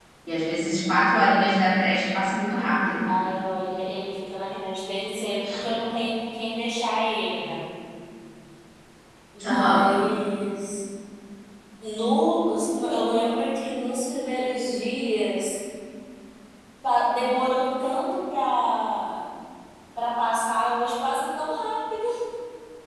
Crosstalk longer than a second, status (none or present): none